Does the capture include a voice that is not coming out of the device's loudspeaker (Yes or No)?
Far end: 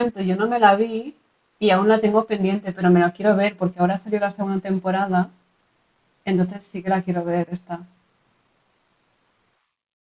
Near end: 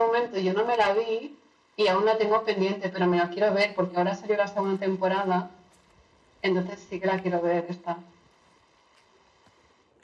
No